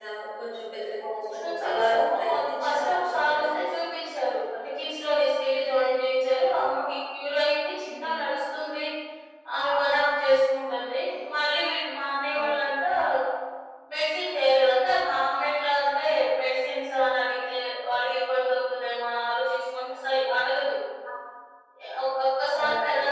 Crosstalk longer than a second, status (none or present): present